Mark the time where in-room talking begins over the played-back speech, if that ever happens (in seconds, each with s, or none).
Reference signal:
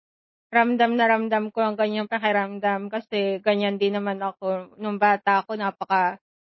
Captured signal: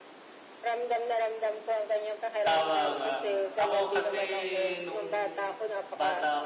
2.4 s